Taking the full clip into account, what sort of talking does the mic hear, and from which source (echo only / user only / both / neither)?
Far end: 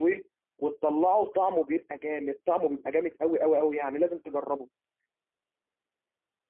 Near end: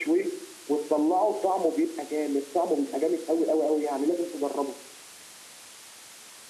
echo only